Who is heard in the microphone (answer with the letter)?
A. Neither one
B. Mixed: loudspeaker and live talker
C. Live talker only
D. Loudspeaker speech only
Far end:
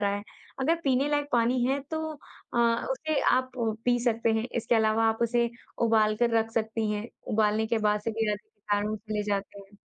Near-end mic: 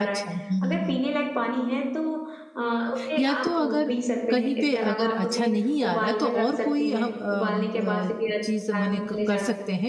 B